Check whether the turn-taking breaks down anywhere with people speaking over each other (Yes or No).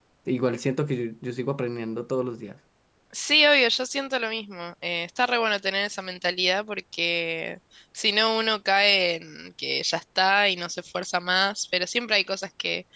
No